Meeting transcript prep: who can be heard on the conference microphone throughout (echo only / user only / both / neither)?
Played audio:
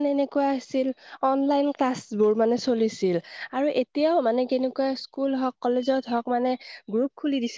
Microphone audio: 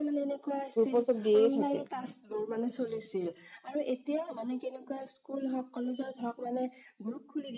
both